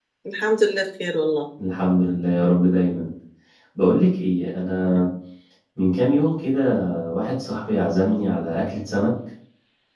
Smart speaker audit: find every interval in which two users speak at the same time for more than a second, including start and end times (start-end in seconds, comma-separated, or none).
none